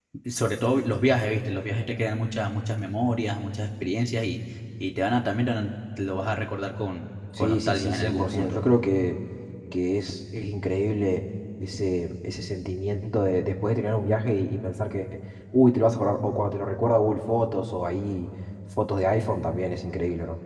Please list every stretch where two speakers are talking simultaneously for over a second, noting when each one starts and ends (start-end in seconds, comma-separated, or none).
7.4-8.6